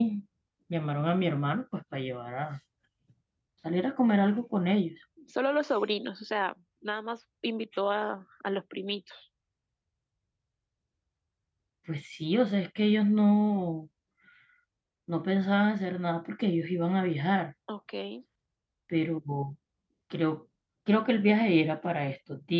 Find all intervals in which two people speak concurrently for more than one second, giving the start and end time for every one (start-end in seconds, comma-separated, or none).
none